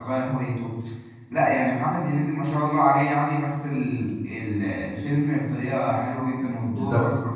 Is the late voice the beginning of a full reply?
Yes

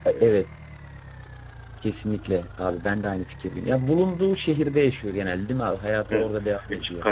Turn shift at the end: Yes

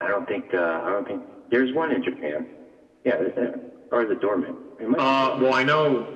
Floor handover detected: Yes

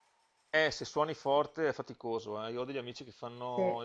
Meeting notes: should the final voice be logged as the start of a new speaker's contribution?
No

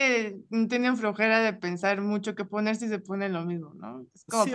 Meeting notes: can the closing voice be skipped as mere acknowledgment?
No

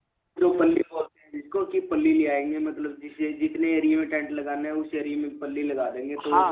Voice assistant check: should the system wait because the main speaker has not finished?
No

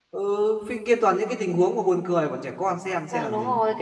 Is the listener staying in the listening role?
No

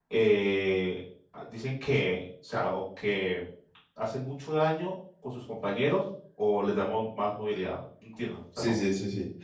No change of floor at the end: No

